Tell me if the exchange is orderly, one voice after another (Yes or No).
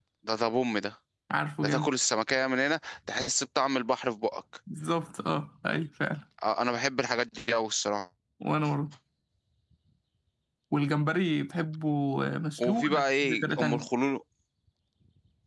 No